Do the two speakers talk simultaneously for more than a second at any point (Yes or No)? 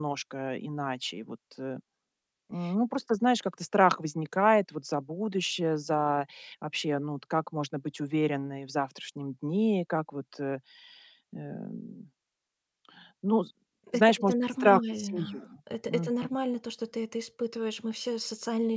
Yes